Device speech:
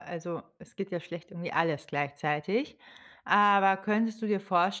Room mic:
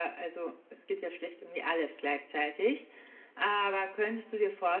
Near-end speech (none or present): none